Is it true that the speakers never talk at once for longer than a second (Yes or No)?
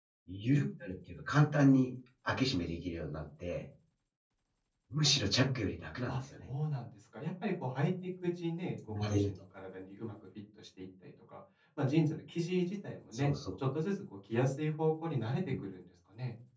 Yes